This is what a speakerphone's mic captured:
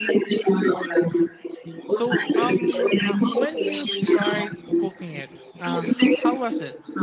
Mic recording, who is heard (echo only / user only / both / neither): both